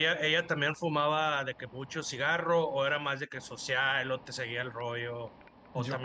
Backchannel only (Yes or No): No